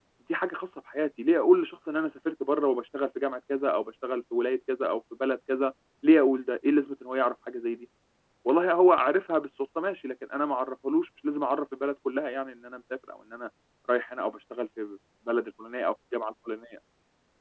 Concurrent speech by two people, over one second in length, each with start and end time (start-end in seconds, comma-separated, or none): none